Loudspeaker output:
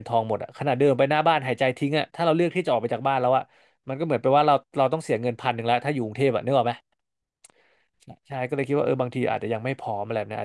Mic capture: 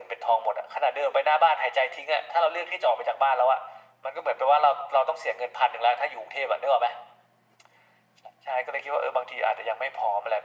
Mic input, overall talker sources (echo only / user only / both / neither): echo only